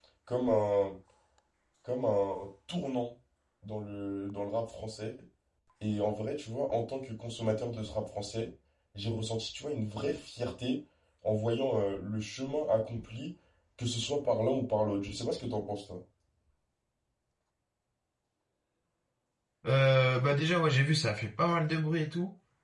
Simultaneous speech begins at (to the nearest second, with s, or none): none